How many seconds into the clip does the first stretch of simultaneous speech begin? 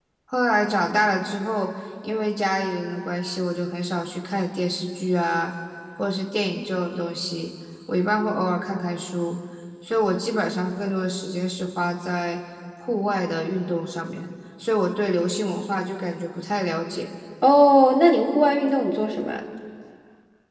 none

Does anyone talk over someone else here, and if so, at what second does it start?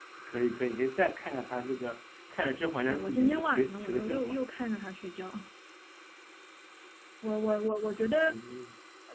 2.9 s

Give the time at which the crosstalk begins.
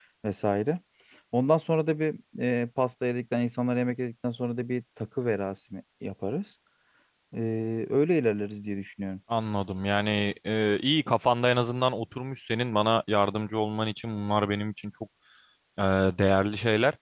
none

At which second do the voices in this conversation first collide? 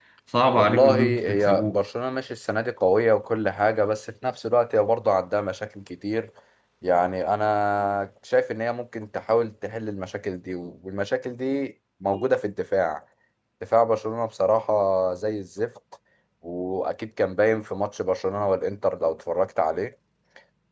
0.6 s

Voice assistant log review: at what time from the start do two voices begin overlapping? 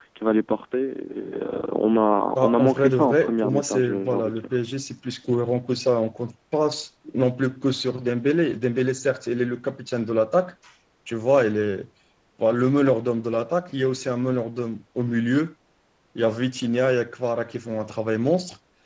2.4 s

